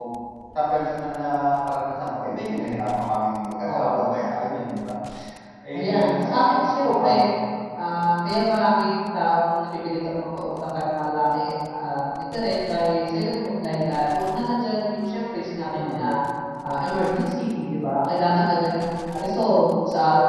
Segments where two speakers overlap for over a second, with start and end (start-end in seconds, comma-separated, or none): 5.7-7.1